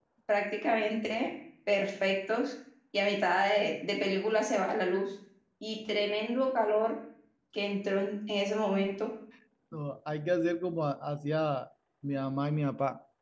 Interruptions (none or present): none